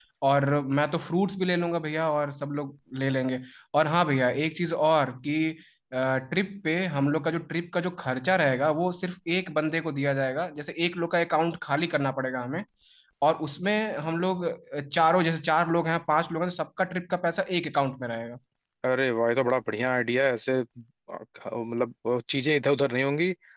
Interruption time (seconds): none

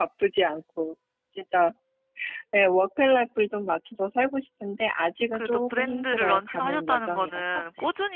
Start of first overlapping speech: 5.3 s

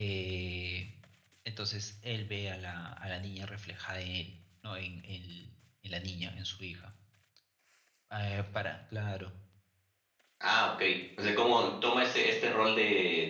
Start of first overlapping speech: none

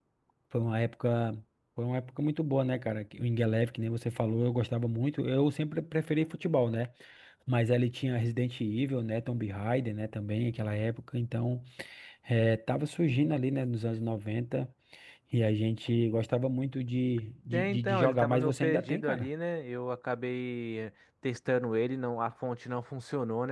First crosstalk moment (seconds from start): 17.5 s

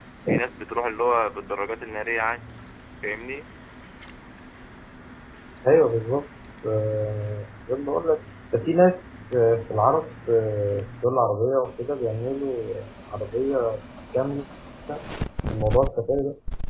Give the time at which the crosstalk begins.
none

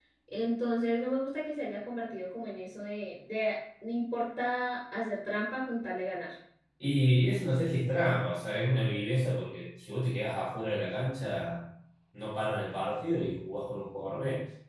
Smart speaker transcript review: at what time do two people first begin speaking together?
none

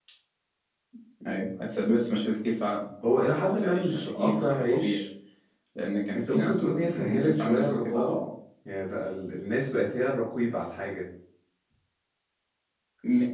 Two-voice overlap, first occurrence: 3.0 s

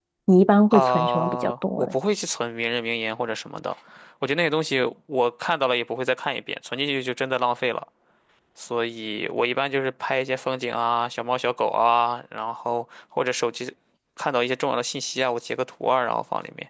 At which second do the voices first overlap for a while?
0.7 s

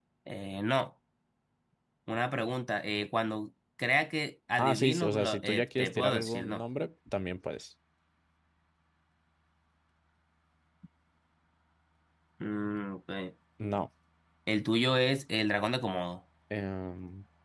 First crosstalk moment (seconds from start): 4.6 s

